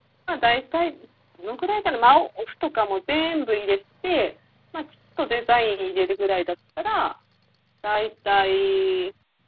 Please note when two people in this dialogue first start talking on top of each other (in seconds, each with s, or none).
none